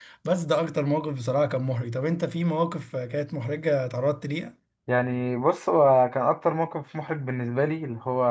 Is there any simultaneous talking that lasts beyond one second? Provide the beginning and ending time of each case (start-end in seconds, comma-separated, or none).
none